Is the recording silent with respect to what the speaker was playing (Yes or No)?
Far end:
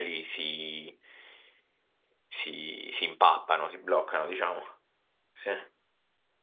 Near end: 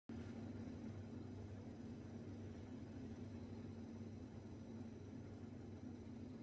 Yes